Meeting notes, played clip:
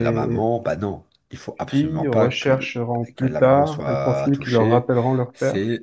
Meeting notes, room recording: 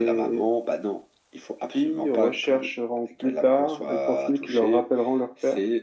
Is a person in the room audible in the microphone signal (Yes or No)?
No